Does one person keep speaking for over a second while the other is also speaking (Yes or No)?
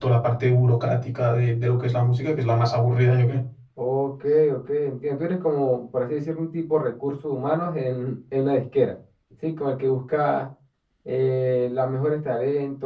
No